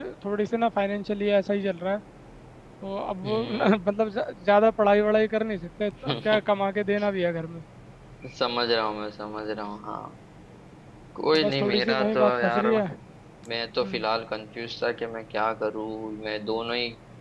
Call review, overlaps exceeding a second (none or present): present